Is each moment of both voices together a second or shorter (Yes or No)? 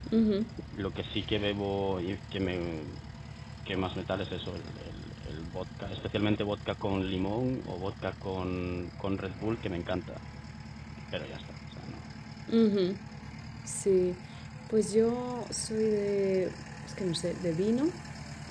Yes